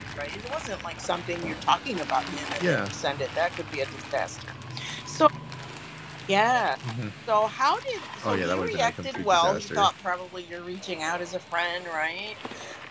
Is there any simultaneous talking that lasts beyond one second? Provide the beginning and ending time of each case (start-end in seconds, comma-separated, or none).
8.3-9.9